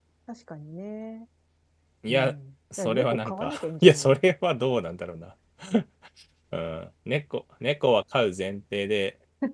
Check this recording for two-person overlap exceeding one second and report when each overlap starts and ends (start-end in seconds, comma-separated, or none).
2.8-4.2